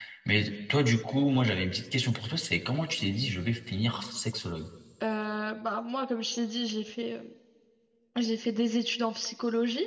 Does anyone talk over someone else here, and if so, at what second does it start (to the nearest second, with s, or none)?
none